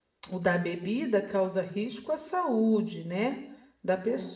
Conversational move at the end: listening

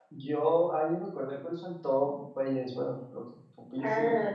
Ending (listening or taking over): taking over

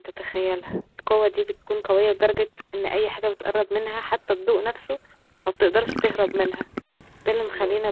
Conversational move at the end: listening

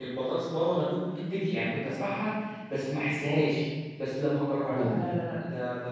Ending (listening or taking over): listening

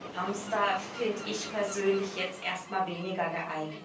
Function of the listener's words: taking over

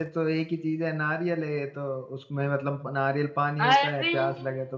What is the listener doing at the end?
listening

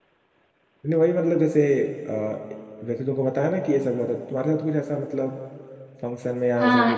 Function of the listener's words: taking over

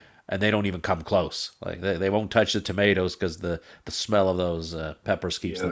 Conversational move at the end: taking over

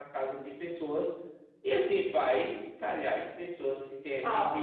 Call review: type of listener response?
listening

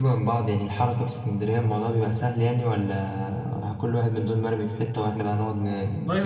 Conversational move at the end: taking over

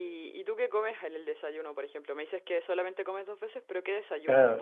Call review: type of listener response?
taking over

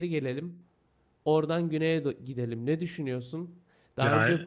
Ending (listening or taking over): listening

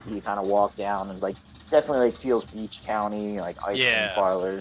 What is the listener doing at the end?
taking over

